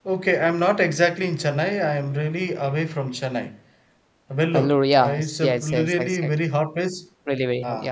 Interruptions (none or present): present